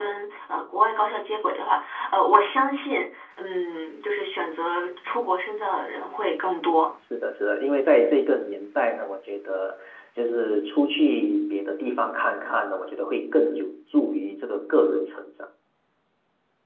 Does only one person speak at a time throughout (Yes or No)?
Yes